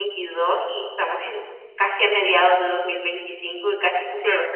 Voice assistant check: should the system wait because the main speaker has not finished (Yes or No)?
No